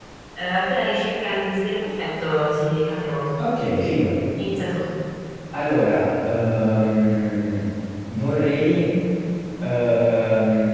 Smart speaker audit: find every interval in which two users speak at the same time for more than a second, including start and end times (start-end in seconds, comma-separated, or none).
none